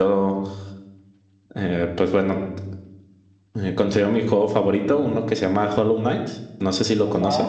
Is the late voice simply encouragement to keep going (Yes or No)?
No